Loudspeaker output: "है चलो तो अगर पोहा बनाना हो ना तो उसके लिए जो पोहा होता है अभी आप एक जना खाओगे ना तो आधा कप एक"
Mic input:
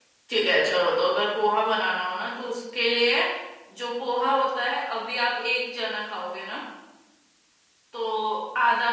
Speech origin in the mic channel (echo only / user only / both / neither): echo only